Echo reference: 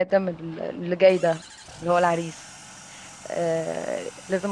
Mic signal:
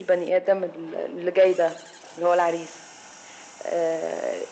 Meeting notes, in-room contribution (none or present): none